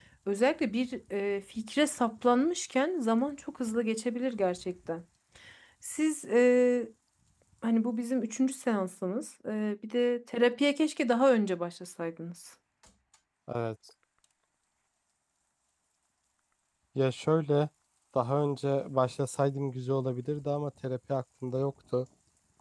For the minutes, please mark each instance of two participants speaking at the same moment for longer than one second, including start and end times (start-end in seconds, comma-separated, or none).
none